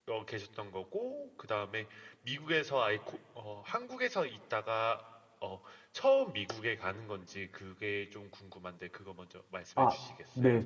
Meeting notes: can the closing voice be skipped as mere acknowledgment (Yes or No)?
No